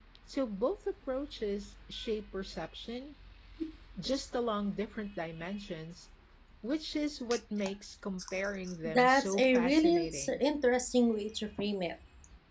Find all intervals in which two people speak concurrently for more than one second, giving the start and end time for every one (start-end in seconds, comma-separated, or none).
8.9-10.4